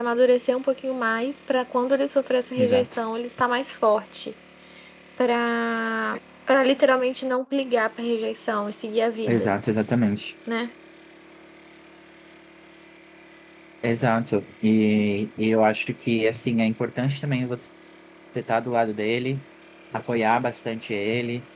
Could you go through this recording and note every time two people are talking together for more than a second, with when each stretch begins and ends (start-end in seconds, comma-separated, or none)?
none